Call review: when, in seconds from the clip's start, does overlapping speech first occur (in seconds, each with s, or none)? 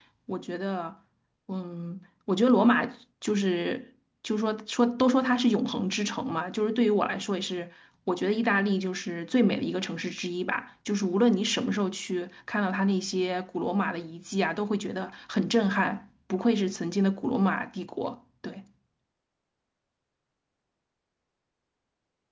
none